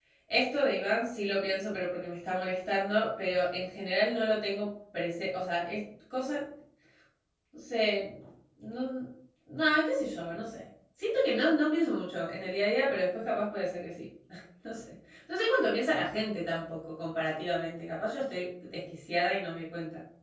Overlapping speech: No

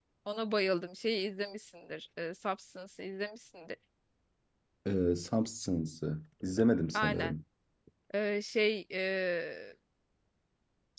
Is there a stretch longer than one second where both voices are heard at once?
No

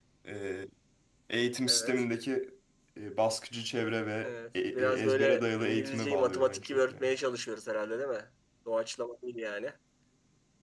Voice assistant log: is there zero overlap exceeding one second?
No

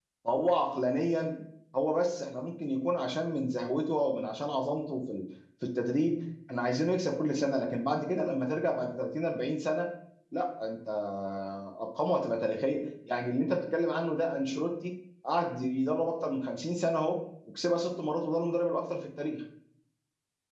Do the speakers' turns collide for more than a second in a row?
No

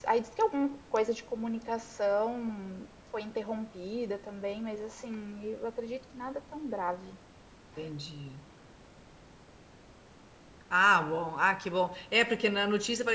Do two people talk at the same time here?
No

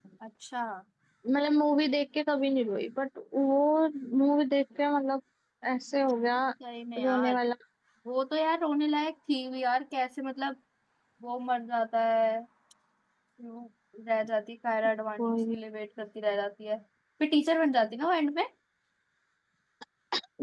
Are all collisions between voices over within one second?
Yes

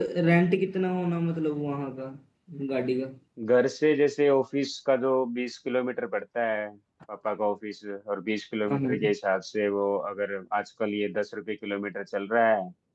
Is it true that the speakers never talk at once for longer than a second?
Yes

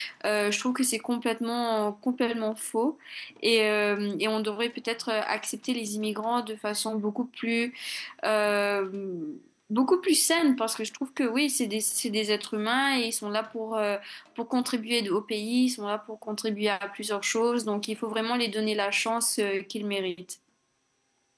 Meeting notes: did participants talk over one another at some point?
No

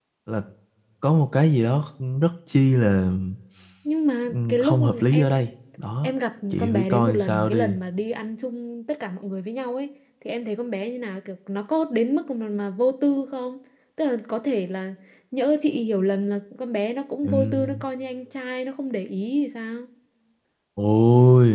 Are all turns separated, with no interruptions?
No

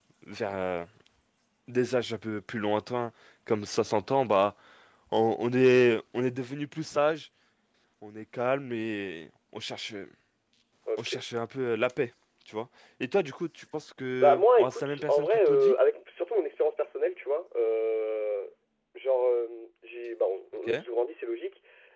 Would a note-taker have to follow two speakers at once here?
Yes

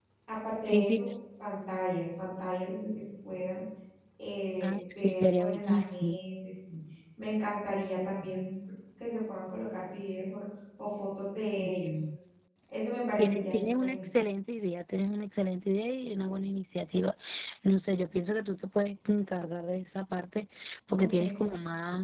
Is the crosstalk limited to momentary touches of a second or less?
No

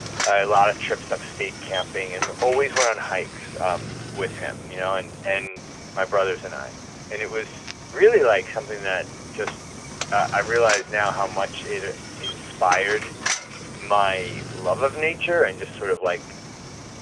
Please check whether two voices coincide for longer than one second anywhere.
No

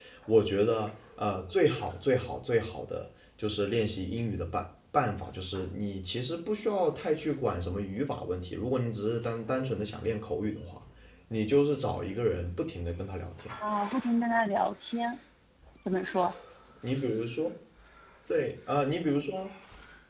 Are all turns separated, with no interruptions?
Yes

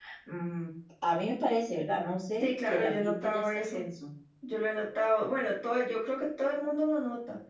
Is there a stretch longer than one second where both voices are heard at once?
Yes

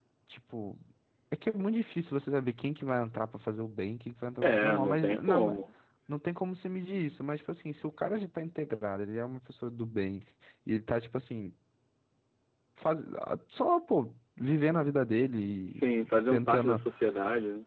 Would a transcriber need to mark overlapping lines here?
Yes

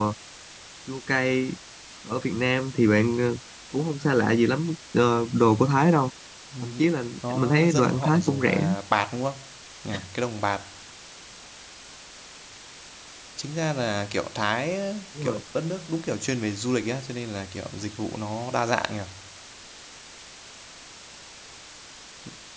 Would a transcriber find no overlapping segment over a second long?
No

